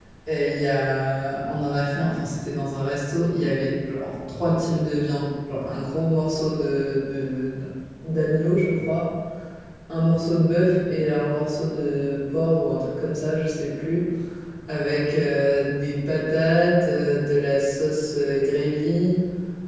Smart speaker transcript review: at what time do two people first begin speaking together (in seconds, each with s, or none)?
none